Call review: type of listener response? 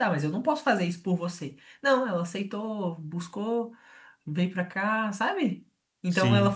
listening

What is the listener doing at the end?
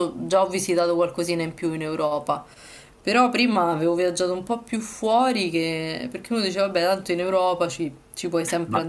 taking over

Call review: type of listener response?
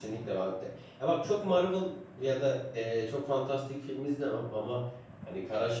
listening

